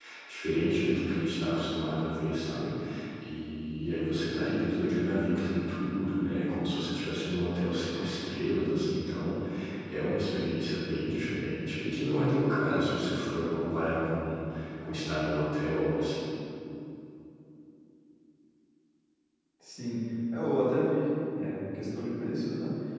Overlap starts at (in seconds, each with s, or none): none